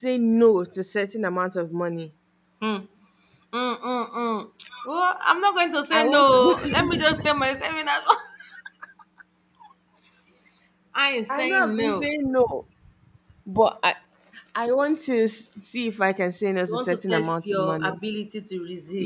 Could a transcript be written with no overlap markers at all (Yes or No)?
No